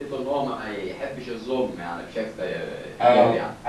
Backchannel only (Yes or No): No